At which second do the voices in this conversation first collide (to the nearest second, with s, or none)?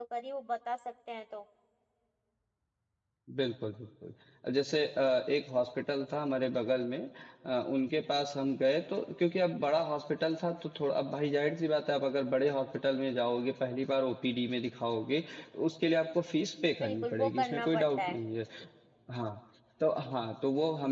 17 s